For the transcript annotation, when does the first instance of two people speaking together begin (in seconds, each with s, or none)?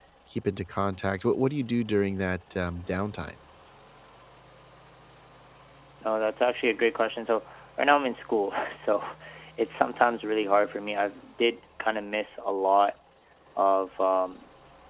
none